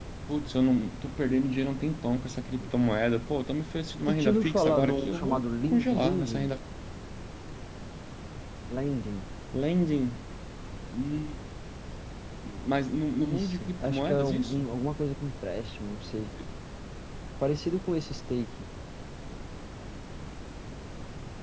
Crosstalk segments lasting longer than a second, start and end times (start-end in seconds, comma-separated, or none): 4.1-6.4, 13.2-14.7